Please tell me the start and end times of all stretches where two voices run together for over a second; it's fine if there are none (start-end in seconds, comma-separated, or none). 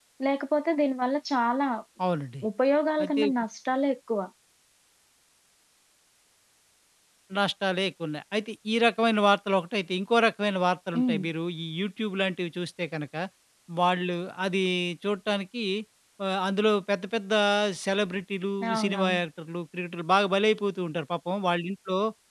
none